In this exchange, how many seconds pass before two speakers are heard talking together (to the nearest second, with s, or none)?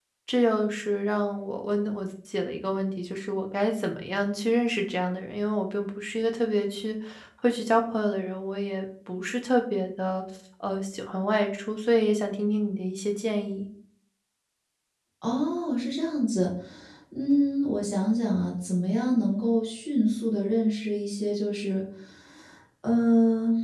none